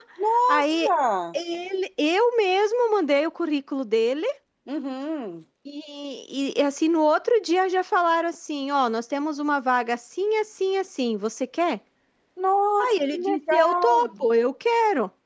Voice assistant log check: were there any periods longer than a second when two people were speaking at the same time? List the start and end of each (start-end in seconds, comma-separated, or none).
12.8-14.1